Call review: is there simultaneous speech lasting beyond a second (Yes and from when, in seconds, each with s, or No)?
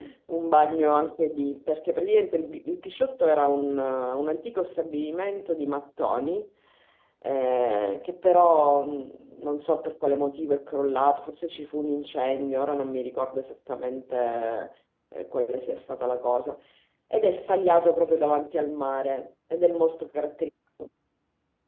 No